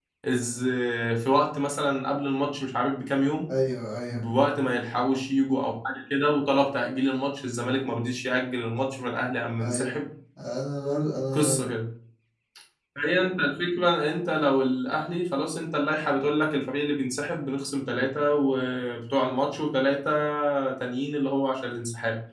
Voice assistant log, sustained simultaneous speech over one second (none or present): none